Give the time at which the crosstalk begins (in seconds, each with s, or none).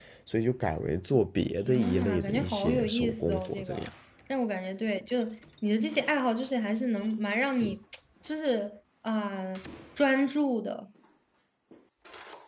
1.7 s